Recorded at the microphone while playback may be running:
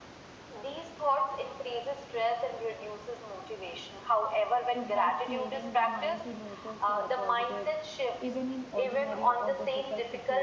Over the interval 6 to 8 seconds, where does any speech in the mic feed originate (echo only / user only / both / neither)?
both